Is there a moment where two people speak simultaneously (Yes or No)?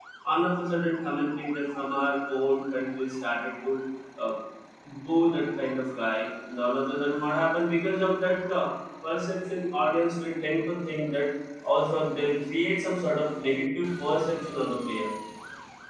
No